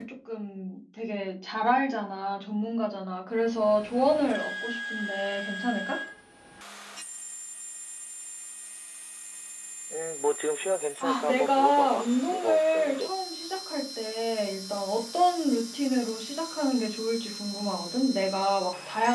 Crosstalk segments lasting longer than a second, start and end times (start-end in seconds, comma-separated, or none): 11.0-13.1